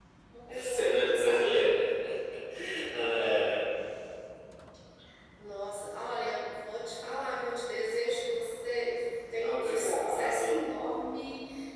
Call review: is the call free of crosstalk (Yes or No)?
No